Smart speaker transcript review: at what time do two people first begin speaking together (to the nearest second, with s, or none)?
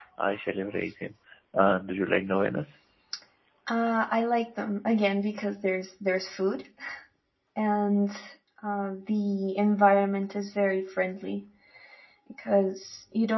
none